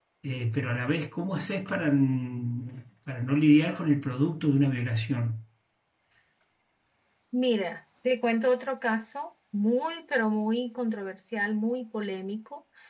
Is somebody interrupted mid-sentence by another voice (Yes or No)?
No